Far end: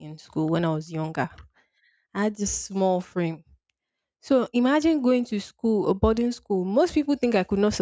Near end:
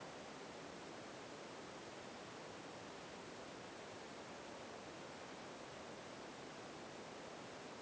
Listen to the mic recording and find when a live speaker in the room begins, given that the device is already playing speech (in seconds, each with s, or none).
none